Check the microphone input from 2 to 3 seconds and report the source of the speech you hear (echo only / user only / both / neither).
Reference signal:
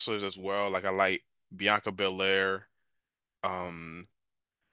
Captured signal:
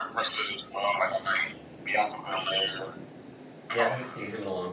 echo only